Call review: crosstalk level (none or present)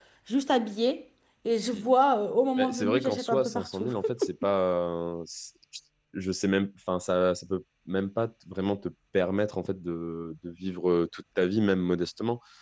present